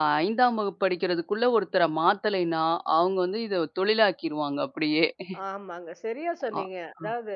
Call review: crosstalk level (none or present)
none